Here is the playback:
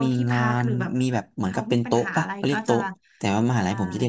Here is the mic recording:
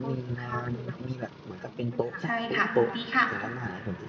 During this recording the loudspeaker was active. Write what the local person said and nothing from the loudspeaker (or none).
ใช่ค่ะดีค่ะ